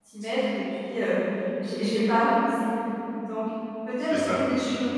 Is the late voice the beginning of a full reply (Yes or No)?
No